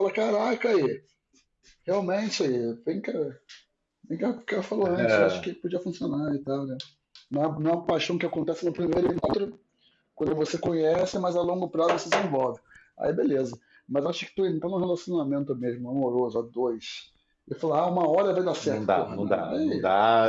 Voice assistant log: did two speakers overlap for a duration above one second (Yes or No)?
Yes